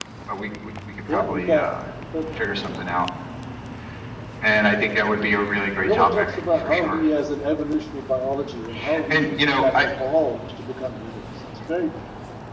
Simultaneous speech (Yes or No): Yes